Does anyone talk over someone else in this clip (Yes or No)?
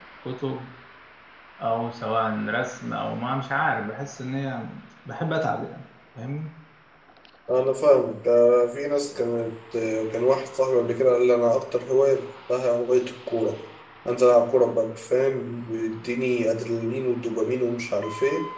No